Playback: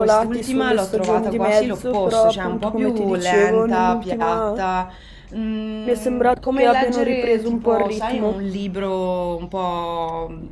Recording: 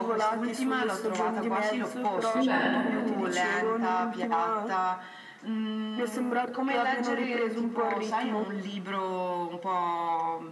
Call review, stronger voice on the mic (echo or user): user